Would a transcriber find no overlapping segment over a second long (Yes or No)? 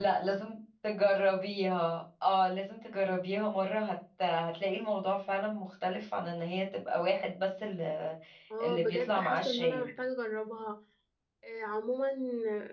No